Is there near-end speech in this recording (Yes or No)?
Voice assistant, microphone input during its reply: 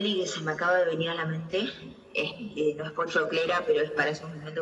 No